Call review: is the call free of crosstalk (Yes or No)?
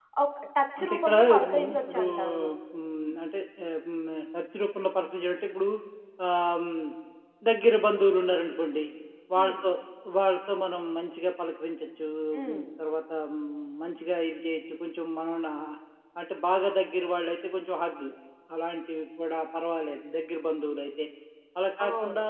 No